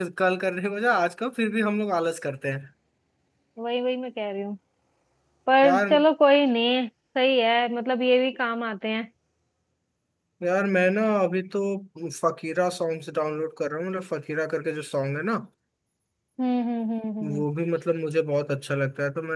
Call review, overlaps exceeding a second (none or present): none